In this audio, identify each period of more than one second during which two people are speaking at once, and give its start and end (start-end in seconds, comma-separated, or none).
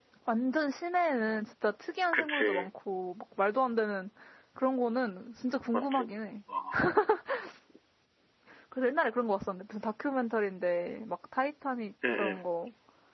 none